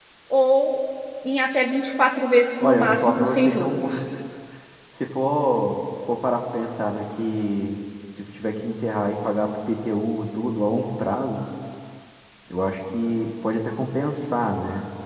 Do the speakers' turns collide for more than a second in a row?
Yes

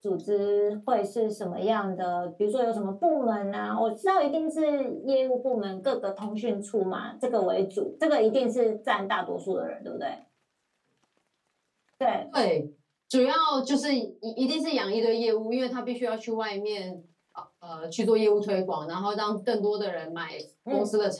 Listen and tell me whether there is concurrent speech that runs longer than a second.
No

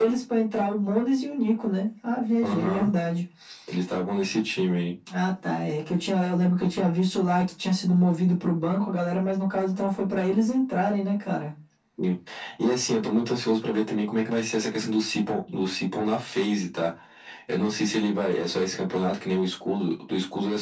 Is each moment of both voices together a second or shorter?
Yes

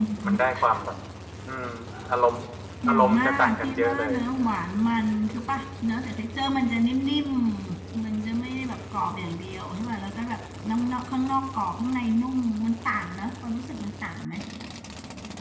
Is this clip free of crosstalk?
No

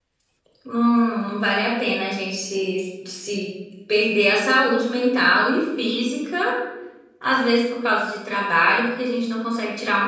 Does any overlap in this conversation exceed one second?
No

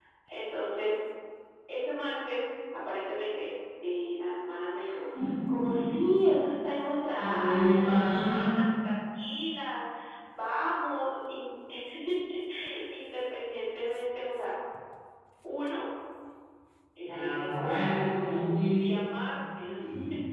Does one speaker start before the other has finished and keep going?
Yes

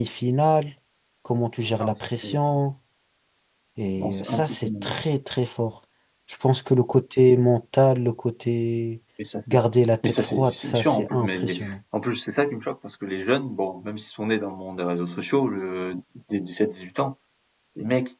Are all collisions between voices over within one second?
No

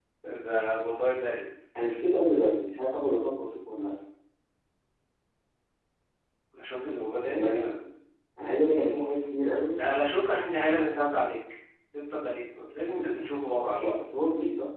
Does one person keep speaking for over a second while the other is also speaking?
No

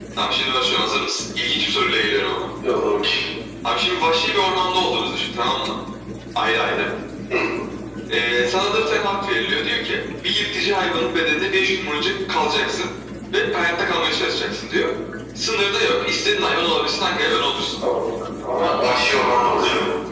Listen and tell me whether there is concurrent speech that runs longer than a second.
No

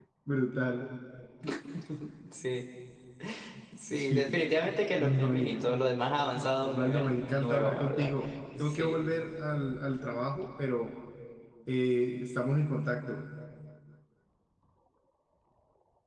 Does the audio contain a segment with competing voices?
Yes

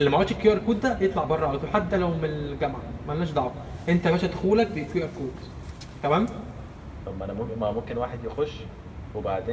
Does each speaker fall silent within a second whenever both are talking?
Yes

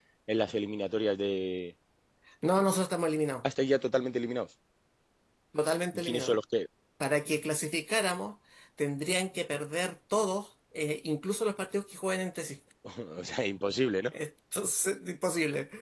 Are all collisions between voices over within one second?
Yes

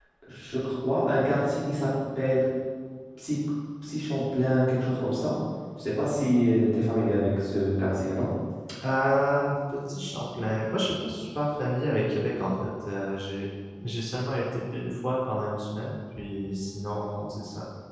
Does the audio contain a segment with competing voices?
No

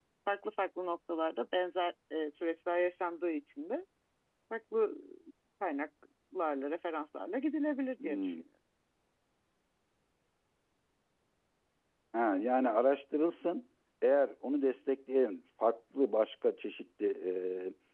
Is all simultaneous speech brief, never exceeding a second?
Yes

